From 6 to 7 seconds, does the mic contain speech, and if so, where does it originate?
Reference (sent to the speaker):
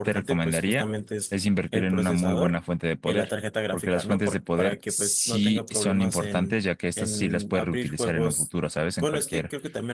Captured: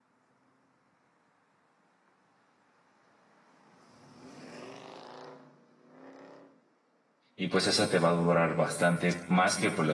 neither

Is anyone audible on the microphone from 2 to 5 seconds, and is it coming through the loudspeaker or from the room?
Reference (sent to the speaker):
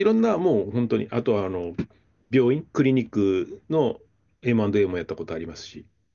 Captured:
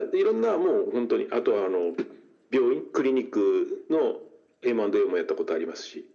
echo only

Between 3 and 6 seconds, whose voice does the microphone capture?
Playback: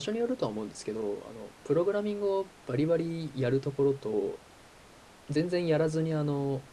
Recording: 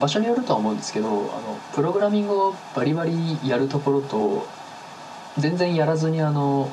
echo only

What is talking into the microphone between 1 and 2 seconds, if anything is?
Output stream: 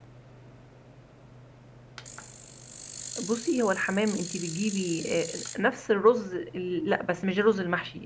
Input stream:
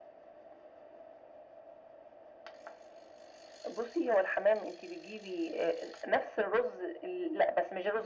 neither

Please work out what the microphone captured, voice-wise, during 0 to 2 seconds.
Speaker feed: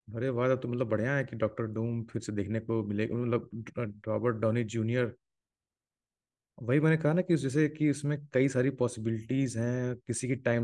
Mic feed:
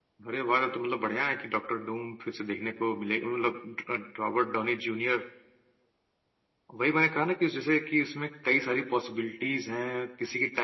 echo only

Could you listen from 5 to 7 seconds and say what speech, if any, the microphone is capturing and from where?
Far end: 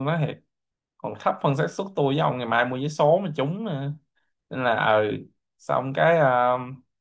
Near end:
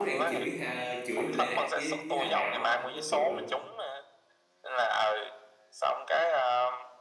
echo only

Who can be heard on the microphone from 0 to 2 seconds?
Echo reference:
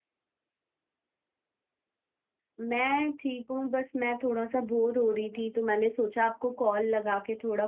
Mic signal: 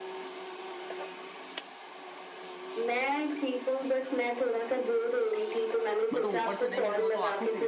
neither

